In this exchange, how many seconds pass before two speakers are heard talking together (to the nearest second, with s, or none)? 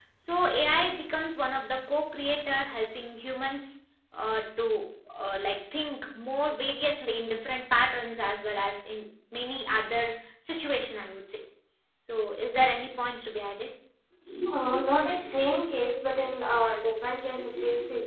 none